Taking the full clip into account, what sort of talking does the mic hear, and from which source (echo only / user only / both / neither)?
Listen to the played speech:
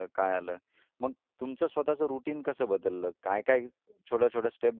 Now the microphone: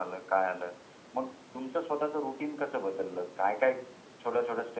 echo only